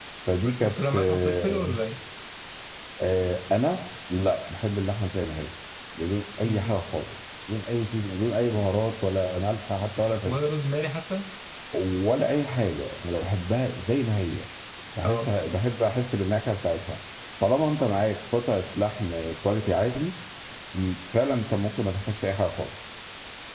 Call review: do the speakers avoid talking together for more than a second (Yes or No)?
No